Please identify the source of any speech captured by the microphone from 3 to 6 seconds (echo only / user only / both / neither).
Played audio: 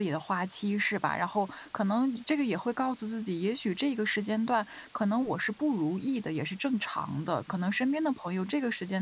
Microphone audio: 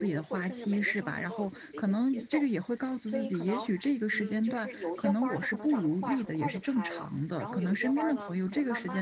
both